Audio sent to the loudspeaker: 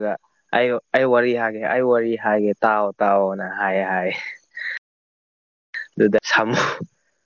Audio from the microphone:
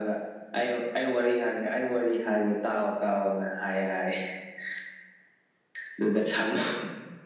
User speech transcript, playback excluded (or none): none